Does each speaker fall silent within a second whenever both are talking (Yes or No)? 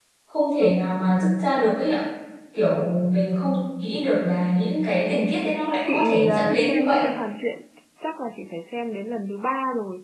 No